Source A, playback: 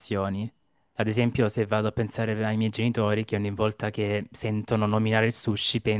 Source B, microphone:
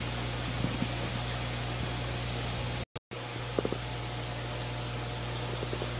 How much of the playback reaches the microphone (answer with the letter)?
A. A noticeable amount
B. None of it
B